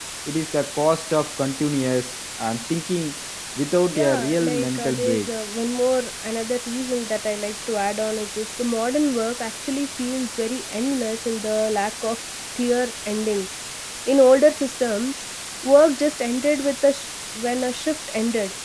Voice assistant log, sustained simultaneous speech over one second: present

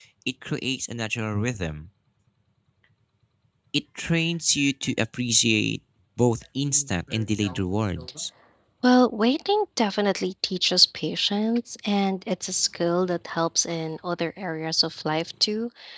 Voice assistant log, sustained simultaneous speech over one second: none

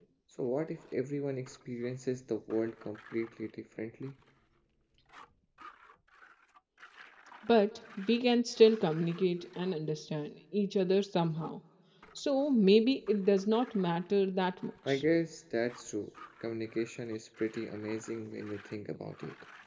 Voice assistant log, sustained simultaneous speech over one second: none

